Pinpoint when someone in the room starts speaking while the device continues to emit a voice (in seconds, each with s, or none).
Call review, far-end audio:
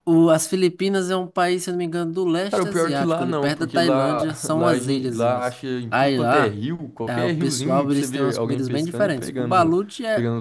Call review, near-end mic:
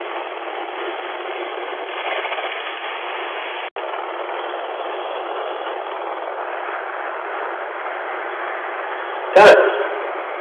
9.3 s